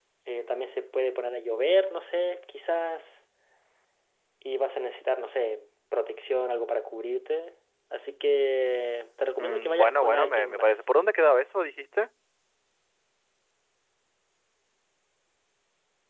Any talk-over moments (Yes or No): Yes